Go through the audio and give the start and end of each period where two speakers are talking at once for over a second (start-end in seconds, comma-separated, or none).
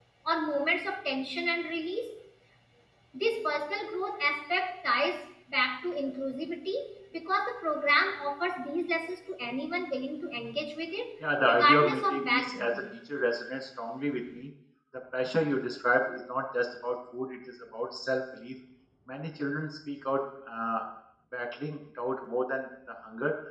11.4-12.8